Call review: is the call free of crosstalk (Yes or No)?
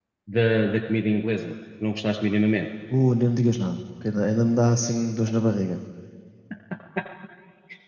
Yes